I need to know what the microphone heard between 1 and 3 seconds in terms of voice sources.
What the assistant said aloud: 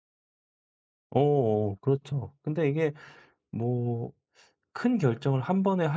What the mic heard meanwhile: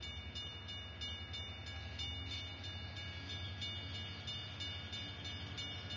neither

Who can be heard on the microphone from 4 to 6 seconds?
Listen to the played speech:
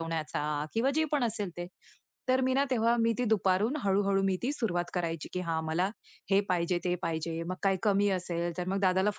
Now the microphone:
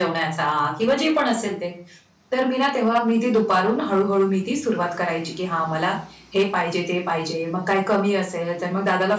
echo only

